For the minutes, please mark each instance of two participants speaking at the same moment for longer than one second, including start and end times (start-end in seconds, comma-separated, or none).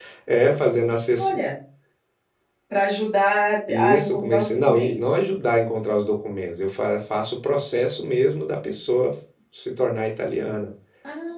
3.7-5.2